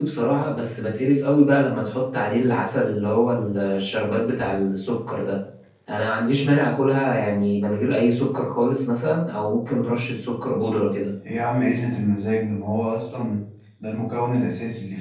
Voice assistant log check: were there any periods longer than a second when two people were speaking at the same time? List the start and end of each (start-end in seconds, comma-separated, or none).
none